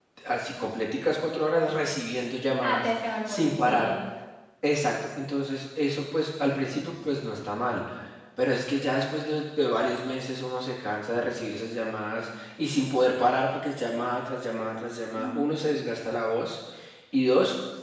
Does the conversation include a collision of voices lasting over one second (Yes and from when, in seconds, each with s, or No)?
Yes, from 2.6 s